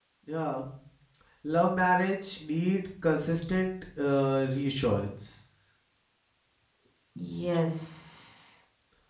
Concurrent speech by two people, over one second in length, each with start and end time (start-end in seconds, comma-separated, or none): none